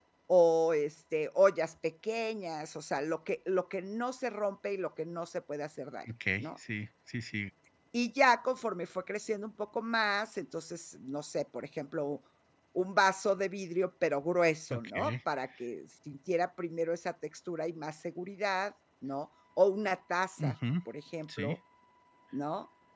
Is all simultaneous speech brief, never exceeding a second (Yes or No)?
Yes